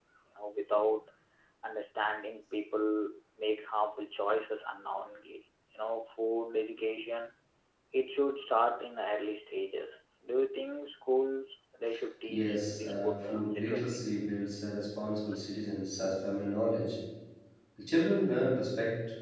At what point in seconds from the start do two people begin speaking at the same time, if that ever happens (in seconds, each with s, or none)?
12.3 s